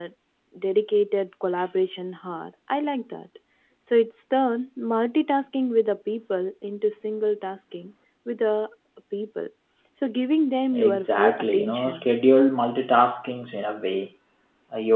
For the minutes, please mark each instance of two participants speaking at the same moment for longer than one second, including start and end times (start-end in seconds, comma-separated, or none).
10.8-12.1